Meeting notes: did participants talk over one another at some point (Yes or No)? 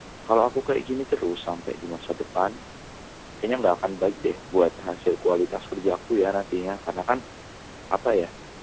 No